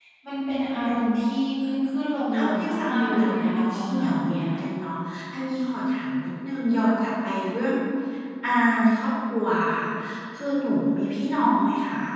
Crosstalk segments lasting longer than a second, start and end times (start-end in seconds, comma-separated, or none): 2.5-4.5